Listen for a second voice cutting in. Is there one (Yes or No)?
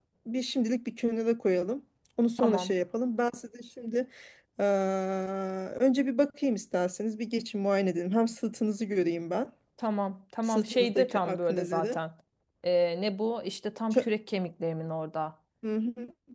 Yes